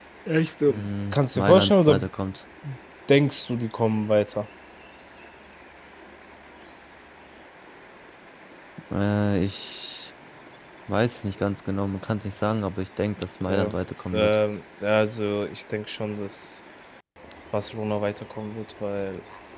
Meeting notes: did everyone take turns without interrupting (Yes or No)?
No